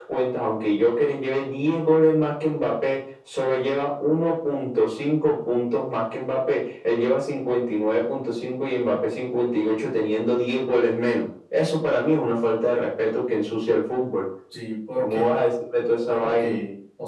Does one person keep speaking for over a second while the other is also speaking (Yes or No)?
No